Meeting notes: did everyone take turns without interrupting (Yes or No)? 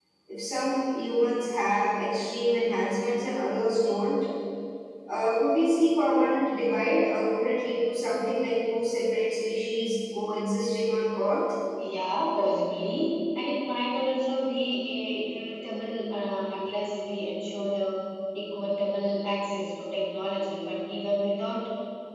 Yes